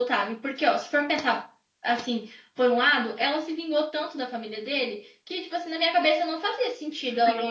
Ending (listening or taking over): taking over